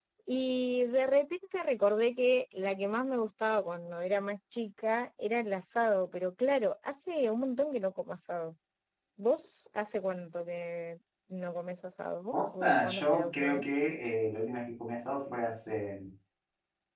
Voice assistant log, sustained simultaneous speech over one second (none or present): present